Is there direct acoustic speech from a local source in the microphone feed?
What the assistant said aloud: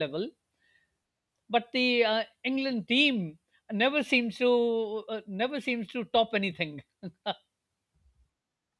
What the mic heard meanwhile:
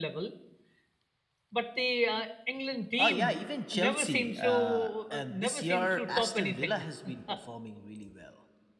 Yes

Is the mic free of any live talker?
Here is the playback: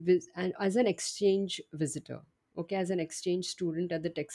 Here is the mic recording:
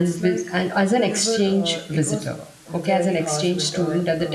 No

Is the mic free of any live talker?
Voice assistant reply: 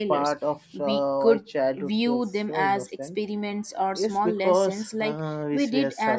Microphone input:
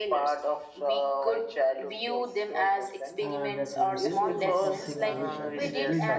No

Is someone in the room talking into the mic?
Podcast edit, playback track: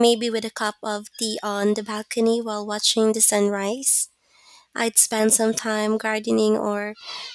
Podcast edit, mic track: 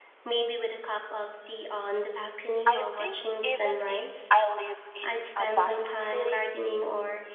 Yes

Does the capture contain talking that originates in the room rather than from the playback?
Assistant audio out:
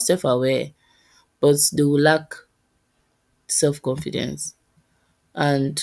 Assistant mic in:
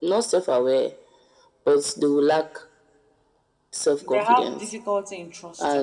Yes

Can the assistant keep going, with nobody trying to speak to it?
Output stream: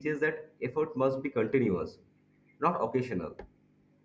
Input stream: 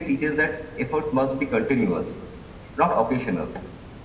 Yes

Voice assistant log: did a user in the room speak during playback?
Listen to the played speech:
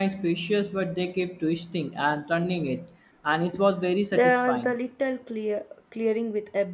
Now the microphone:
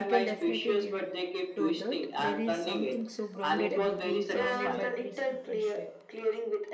Yes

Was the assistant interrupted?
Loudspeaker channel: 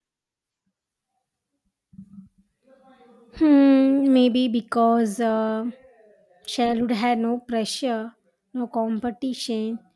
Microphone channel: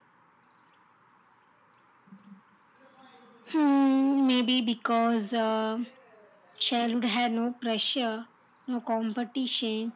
No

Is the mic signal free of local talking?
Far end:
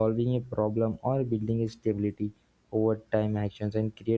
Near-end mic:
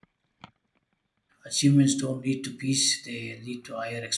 No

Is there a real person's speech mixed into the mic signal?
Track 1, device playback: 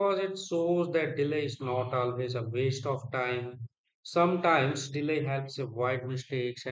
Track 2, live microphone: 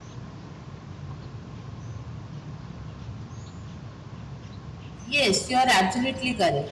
Yes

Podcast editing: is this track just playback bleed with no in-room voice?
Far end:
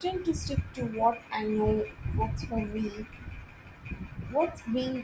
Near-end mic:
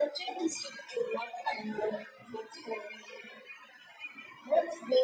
Yes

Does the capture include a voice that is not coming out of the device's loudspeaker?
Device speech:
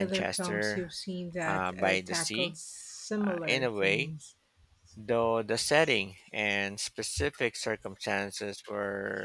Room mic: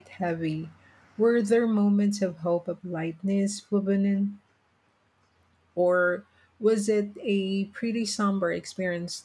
Yes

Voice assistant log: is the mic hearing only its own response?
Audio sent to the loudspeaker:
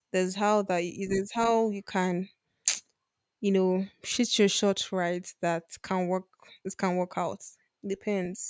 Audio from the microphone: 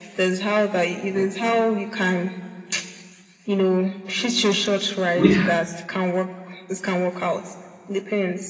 No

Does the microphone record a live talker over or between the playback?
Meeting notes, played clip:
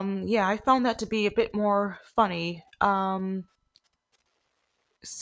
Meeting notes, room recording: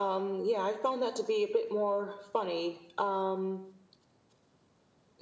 No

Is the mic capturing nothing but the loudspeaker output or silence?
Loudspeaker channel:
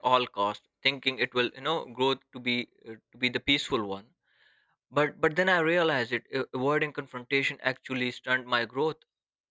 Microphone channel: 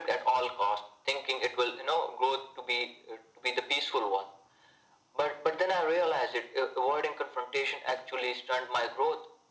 Yes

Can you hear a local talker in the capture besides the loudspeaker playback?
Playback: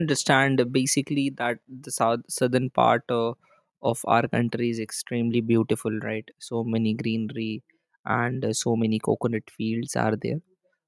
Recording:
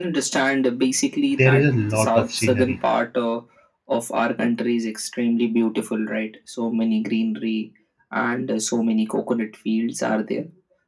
Yes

